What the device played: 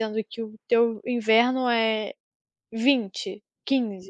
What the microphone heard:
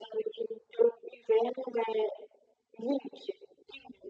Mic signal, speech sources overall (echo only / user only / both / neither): echo only